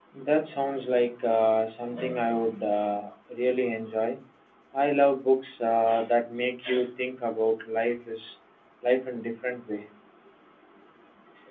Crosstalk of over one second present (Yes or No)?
No